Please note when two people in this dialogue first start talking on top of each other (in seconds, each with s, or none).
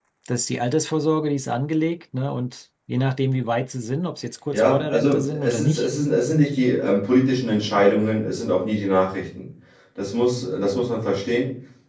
4.5 s